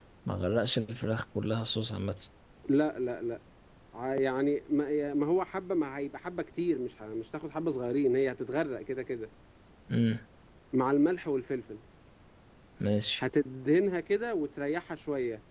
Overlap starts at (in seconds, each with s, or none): none